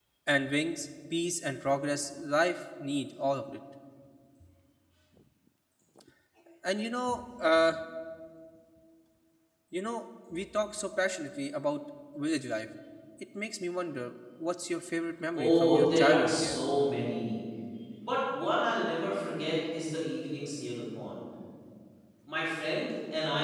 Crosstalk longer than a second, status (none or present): present